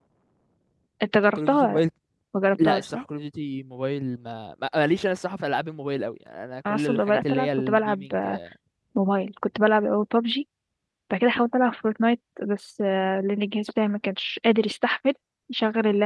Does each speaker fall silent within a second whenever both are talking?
No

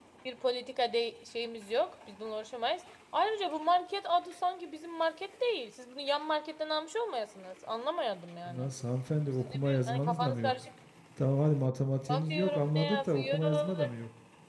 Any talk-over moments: Yes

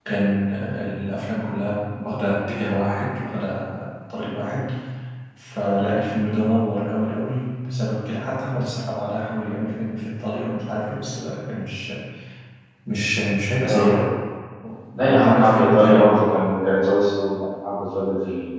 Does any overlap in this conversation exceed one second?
Yes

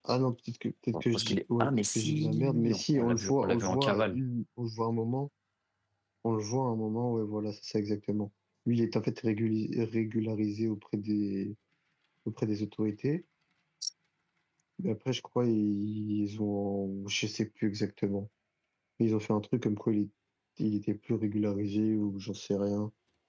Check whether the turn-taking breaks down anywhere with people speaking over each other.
Yes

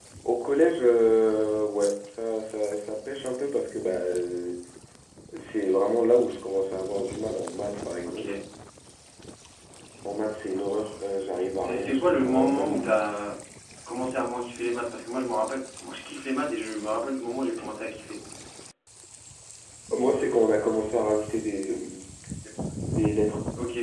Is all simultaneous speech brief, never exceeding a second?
No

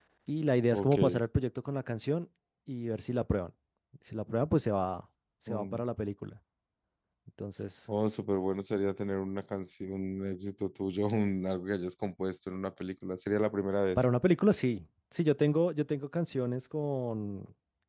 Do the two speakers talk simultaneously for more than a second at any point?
No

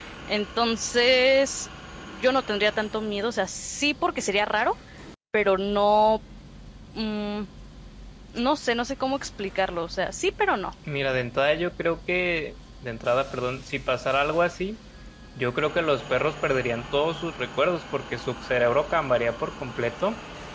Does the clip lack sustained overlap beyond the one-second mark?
Yes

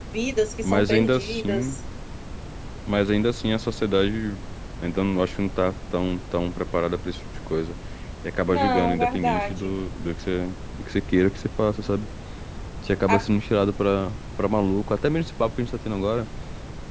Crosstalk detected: Yes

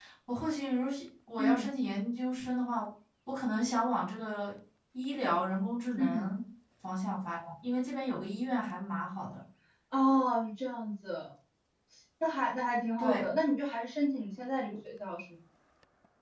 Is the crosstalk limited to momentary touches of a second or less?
Yes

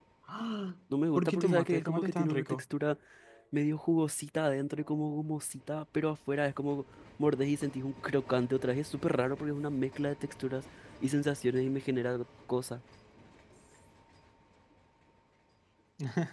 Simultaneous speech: Yes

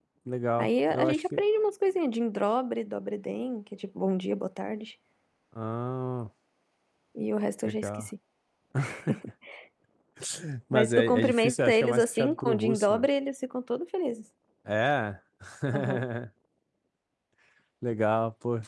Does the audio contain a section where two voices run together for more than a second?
Yes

